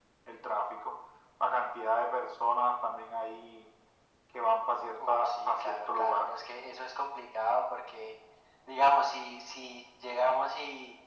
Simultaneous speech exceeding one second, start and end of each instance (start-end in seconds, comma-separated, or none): 5.0-6.3